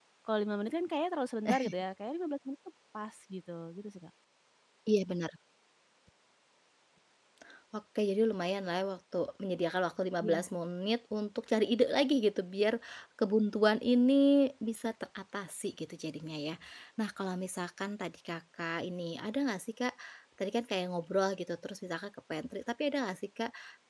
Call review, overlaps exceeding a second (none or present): none